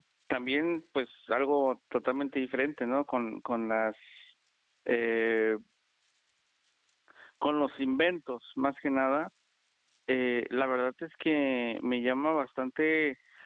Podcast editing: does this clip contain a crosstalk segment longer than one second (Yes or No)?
No